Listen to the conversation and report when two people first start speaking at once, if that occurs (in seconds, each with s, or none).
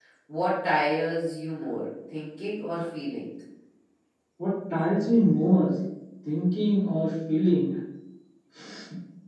none